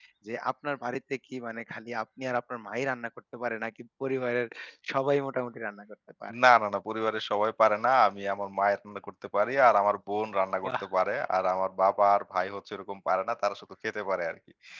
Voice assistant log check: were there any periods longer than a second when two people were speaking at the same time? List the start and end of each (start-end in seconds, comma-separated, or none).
none